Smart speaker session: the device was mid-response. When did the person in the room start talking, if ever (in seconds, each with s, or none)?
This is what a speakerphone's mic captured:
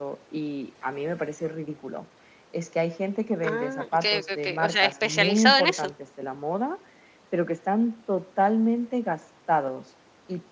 3.4 s